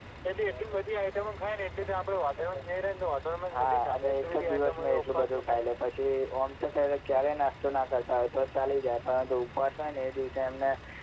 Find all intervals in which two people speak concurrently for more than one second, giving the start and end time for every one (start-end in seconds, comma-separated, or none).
3.6-5.8